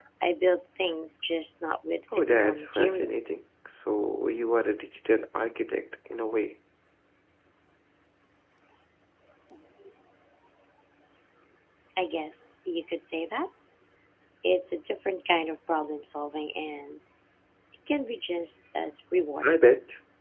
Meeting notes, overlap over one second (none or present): present